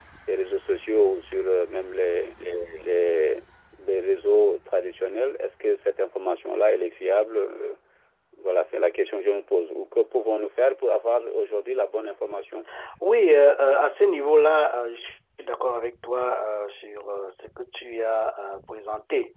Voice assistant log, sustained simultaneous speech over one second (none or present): none